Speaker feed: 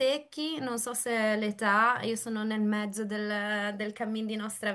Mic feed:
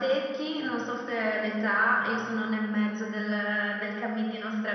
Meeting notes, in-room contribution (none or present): none